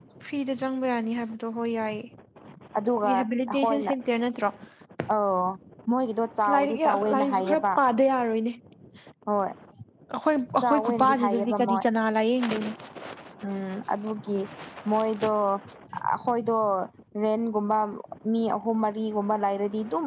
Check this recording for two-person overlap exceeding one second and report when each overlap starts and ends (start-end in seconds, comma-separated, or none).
6.4-7.6, 10.6-11.8